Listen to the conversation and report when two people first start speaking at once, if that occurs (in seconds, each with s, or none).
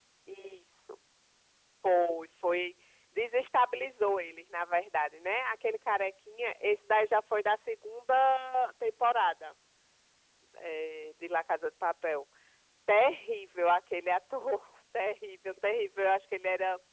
none